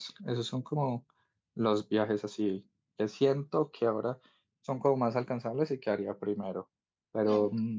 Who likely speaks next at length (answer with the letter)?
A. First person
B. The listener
A